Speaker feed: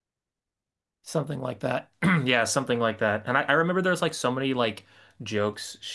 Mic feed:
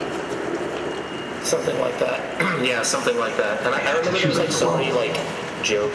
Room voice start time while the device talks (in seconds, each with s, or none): 3.8 s